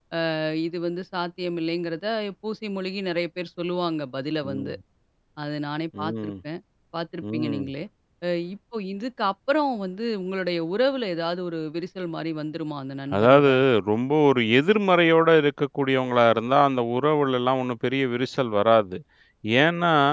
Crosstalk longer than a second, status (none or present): none